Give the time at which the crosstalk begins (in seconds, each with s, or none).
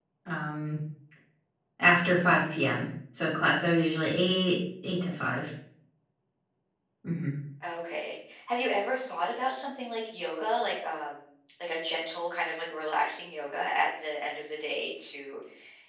none